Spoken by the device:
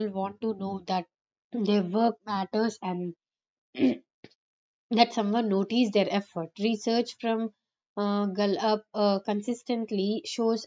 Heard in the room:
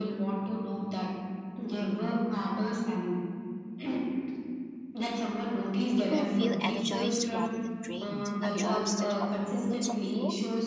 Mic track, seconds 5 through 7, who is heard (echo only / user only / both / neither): both